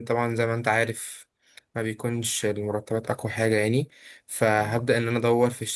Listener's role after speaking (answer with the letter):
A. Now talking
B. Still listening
B